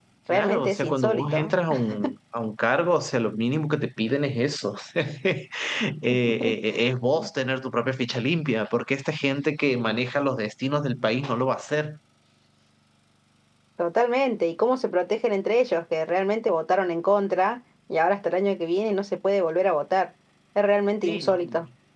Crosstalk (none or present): present